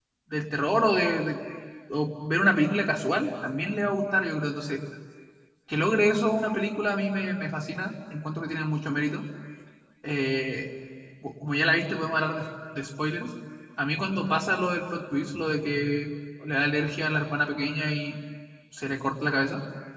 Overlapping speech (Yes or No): No